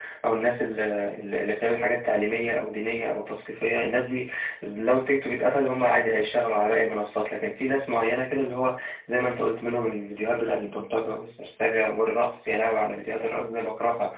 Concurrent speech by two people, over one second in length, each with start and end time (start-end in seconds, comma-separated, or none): none